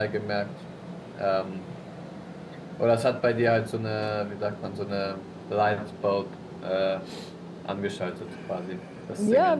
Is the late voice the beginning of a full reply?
Yes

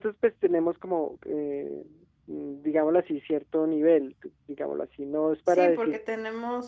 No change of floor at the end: No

